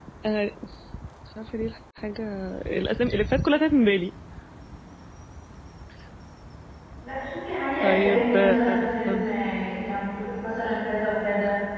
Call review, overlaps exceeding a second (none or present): present